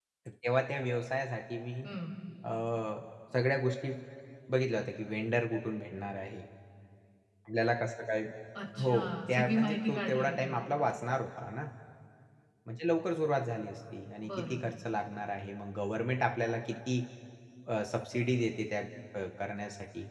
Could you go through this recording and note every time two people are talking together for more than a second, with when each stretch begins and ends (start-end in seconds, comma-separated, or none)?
8.8-10.5